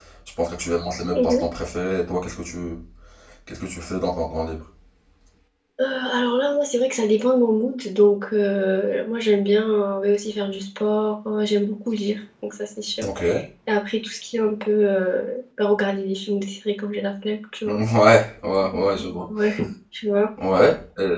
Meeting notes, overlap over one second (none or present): none